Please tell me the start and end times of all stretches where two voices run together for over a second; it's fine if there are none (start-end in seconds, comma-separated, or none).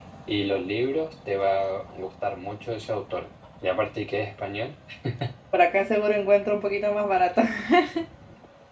none